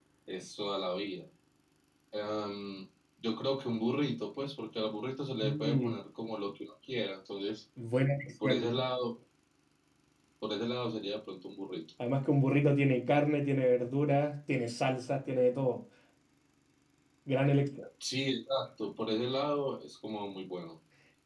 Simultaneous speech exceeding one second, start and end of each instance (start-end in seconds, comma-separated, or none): none